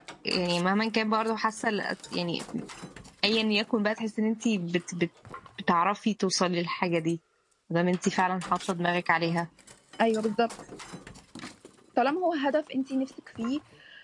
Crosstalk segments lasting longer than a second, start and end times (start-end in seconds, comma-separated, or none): none